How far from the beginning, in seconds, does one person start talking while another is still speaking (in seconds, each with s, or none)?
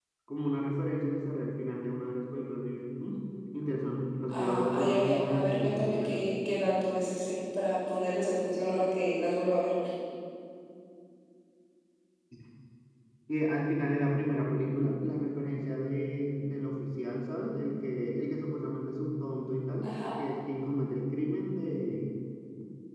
4.3 s